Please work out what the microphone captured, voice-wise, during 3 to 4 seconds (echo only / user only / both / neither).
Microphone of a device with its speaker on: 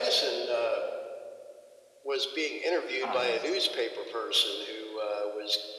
both